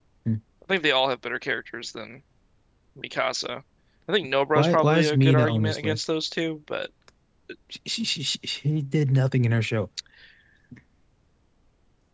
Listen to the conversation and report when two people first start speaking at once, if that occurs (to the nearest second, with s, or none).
5 s